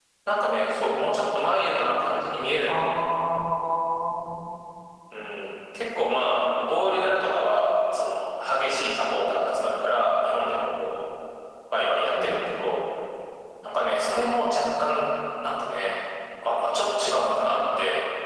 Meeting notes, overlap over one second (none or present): none